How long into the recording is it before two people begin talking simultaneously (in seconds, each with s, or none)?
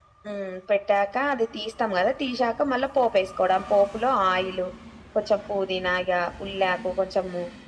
none